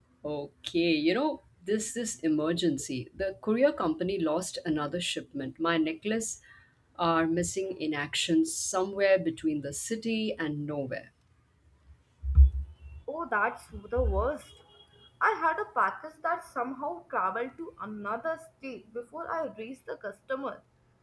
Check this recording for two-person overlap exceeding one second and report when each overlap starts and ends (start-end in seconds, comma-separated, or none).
none